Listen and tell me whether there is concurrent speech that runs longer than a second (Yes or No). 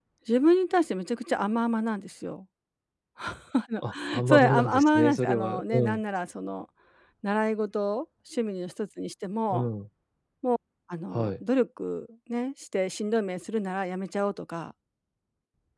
Yes